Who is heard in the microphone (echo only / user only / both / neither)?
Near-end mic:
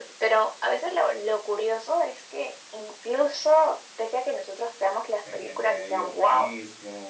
both